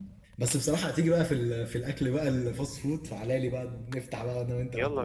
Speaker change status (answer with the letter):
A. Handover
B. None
A